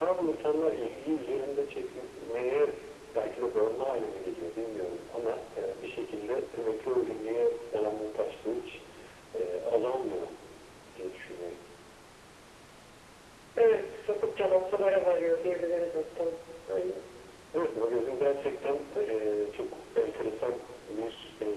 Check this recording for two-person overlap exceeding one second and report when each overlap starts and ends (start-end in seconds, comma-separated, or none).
none